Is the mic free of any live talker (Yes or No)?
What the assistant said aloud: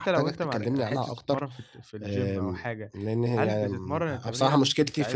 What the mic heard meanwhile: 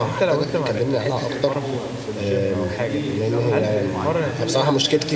No